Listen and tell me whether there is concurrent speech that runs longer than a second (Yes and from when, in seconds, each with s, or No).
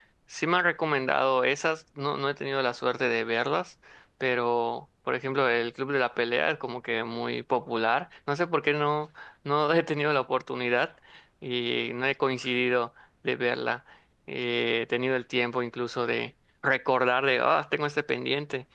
No